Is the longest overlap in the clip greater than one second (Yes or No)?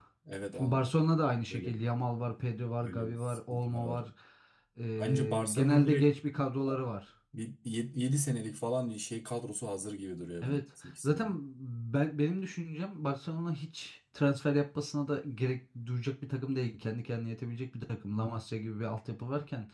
Yes